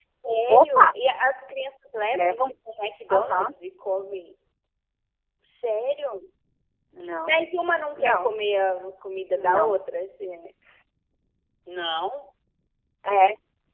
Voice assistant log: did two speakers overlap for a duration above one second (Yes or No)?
No